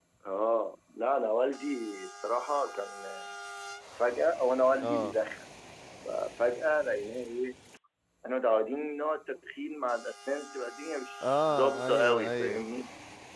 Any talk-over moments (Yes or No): Yes